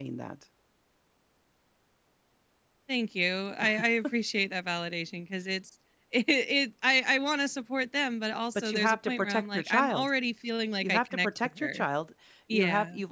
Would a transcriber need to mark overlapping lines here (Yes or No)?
Yes